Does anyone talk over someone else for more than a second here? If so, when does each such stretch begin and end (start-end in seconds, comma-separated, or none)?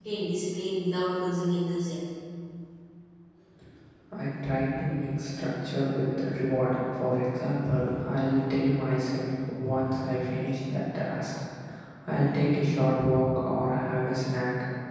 none